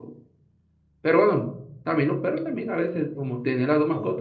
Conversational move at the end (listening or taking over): taking over